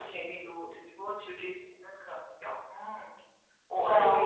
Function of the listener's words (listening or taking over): taking over